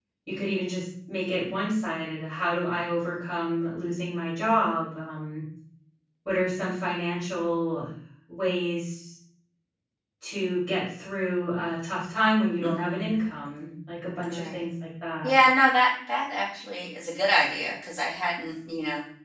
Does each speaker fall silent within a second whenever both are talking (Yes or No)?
Yes